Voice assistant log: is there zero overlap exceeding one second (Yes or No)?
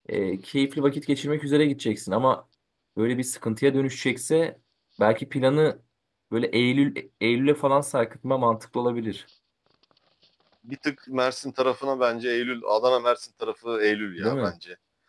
Yes